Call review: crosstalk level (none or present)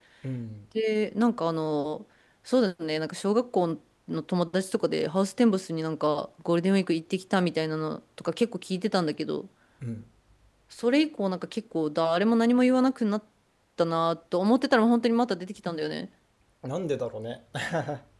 none